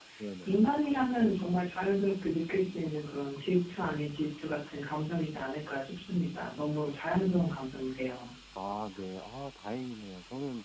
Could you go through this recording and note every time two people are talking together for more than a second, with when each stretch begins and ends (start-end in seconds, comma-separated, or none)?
none